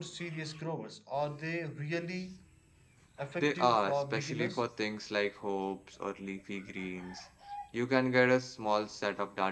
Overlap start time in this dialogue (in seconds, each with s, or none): 3.4 s